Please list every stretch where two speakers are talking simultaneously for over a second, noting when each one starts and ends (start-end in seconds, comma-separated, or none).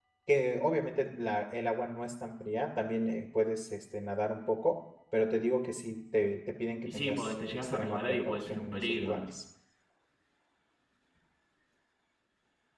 6.8-9.2